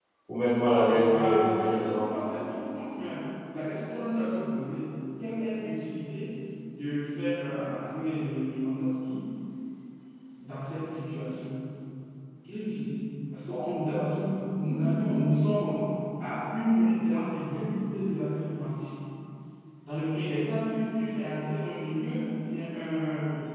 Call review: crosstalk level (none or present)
present